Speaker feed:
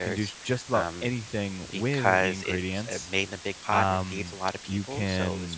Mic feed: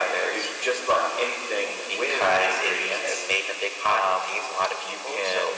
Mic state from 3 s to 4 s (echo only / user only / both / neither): echo only